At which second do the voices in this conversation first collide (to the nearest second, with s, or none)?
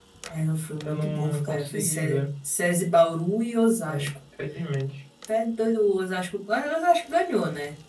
1 s